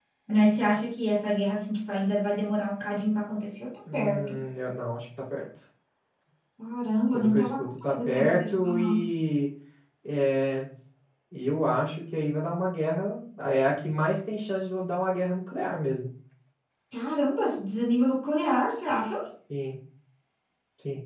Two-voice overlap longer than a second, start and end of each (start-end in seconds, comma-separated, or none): 7.1-9.0